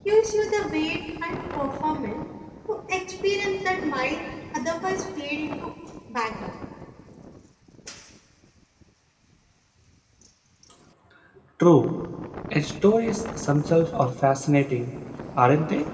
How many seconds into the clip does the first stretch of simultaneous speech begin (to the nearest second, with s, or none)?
none